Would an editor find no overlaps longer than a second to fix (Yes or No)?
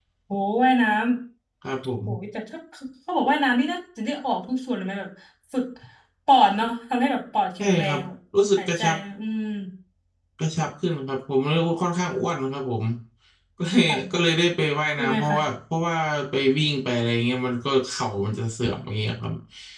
Yes